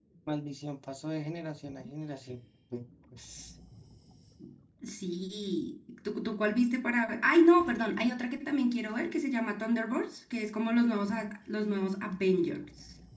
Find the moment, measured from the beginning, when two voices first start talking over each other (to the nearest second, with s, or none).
none